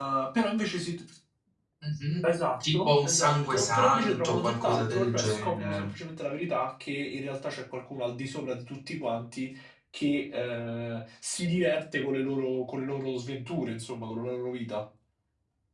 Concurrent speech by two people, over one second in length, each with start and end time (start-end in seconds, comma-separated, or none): 2.6-5.9